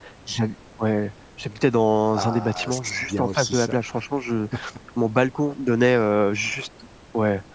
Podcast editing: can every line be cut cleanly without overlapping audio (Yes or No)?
No